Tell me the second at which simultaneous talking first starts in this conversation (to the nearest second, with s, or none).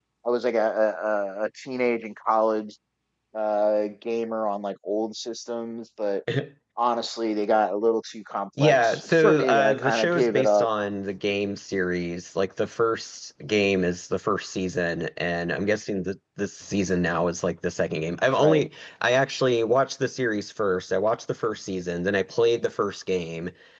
9 s